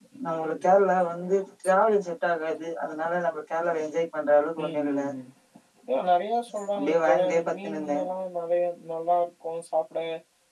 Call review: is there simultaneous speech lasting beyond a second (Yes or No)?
Yes